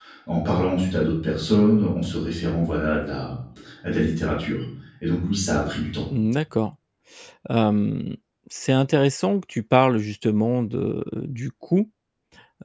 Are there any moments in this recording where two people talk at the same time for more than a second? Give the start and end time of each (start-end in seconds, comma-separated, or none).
none